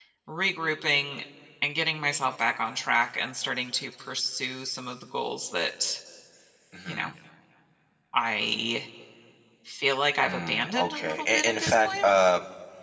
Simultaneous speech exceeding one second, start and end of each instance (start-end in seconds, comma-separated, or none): 10.2-12.1